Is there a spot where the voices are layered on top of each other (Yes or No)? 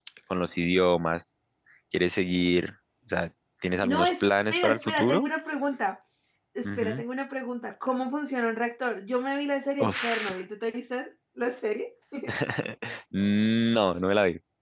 Yes